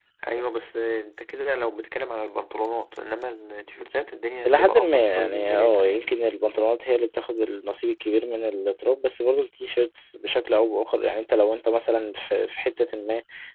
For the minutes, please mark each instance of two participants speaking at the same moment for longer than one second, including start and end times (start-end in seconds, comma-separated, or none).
4.5-6.0